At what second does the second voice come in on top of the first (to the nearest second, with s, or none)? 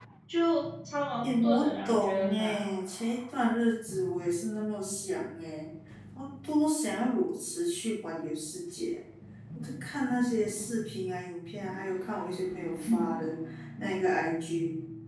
1 s